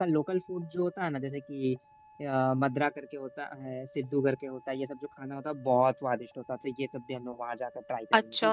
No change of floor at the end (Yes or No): No